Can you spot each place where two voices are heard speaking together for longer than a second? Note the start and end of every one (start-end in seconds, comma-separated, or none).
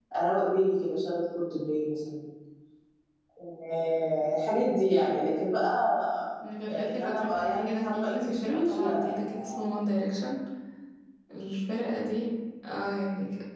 6.7-9.7